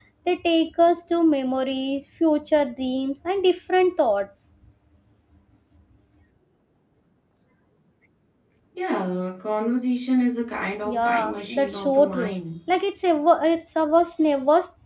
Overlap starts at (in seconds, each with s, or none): 10.8 s